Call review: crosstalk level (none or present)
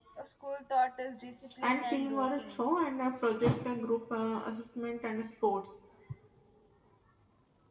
present